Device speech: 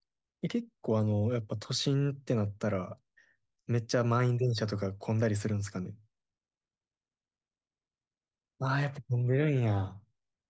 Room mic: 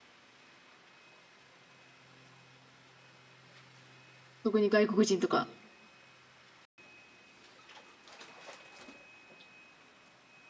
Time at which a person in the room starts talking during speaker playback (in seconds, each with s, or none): 4.4 s